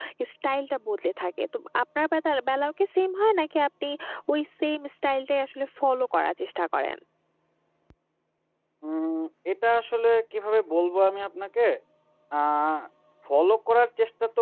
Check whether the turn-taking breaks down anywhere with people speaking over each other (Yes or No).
No